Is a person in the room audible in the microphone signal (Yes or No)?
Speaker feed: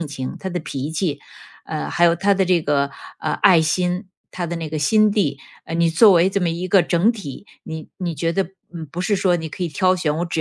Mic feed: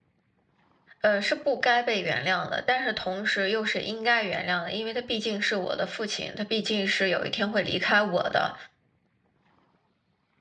Yes